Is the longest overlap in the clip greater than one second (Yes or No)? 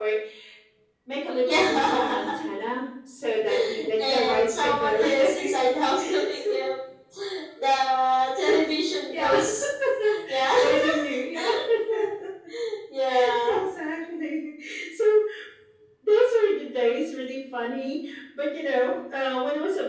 Yes